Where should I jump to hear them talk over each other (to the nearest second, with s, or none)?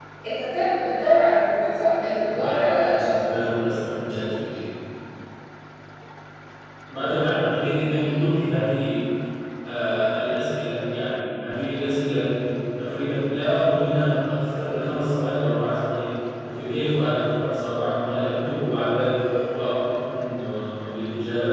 2 s